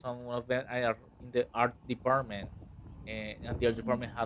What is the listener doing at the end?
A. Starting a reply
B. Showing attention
B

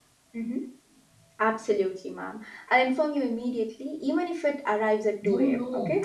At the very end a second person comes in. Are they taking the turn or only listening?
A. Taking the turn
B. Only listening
A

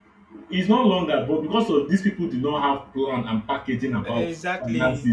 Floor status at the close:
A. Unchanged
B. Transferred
A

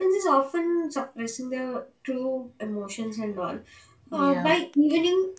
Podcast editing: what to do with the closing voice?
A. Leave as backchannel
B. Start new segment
A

